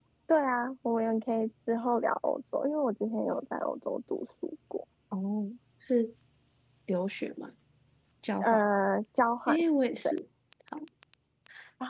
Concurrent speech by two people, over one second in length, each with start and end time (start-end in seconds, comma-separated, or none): none